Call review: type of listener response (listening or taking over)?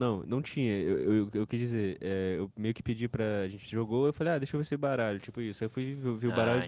listening